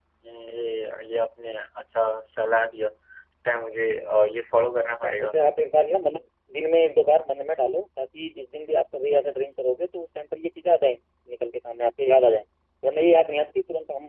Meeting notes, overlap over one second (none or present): none